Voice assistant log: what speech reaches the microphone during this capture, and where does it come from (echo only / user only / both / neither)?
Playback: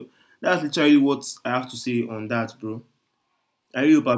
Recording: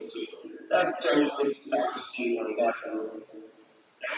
echo only